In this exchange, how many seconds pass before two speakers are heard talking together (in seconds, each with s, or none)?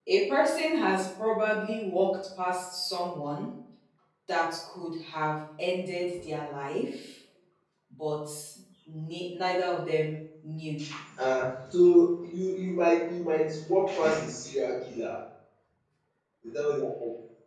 none